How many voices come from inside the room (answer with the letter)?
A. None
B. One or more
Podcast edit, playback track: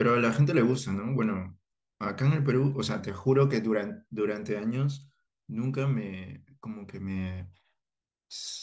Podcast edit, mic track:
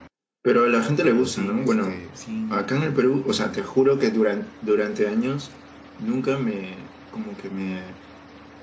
B